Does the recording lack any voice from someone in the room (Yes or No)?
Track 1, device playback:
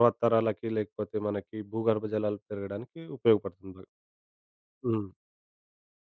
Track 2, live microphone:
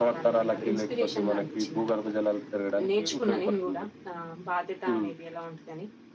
No